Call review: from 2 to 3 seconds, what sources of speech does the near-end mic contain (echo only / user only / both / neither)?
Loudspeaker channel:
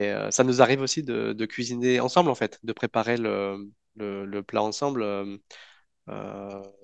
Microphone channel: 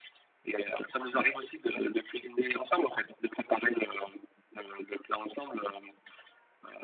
echo only